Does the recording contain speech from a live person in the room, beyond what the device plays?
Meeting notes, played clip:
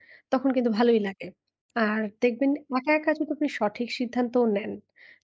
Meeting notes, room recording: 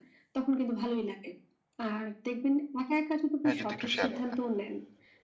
Yes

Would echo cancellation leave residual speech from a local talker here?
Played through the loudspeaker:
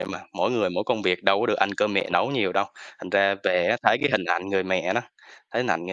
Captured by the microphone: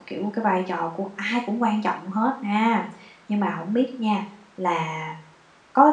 Yes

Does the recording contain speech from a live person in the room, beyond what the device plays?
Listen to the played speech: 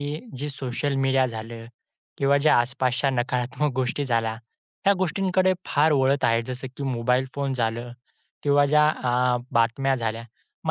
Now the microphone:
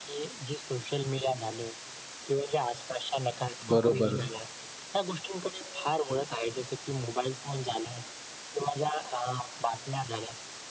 Yes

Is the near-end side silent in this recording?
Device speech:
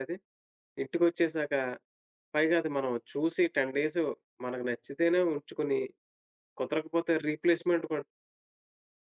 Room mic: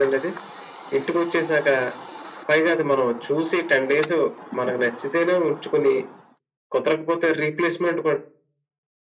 Yes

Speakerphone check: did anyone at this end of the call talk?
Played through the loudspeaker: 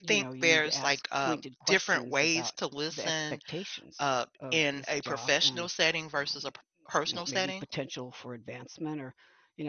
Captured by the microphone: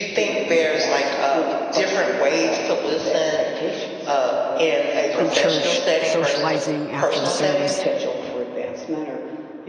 Yes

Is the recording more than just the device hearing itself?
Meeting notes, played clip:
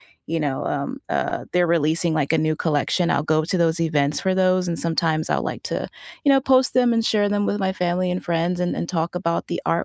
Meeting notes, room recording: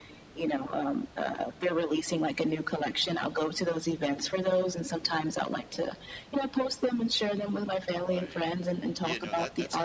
Yes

